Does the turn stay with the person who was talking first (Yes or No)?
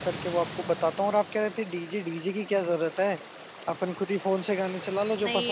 No